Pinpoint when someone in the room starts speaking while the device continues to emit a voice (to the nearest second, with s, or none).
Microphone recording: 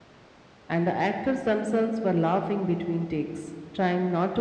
1 s